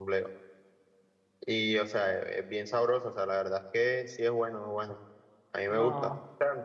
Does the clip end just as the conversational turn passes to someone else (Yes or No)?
No